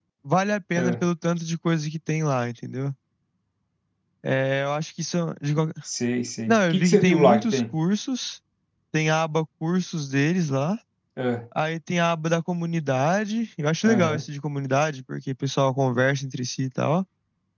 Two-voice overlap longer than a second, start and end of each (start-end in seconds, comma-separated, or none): 6.5-7.8